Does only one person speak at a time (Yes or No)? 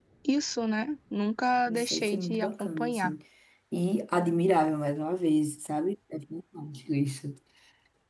No